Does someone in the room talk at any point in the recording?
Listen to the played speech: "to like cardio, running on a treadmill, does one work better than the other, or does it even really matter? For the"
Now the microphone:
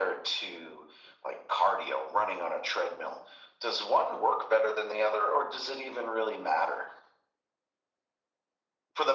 No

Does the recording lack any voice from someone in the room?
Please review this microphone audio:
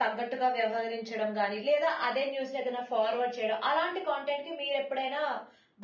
Yes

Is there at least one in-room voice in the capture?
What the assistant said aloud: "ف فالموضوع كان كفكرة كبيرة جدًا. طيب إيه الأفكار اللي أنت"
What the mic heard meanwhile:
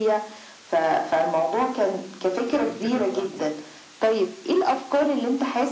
Yes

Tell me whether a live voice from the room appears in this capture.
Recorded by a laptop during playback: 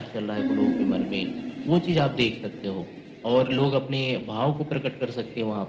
Yes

